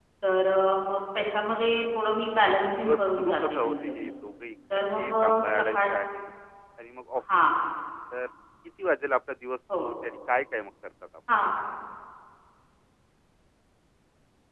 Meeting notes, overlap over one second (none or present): present